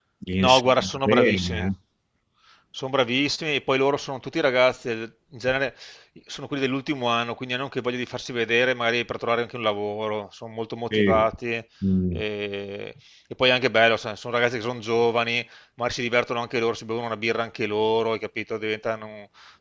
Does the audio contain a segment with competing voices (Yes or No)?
Yes